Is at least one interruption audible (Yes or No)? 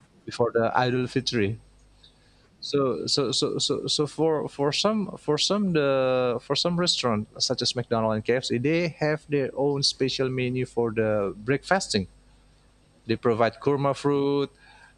No